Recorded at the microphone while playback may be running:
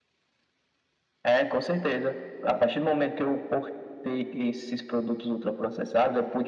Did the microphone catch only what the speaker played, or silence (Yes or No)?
Yes